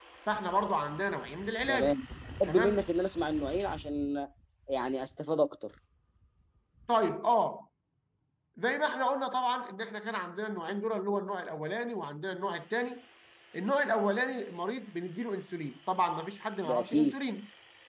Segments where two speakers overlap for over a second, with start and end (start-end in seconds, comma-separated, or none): none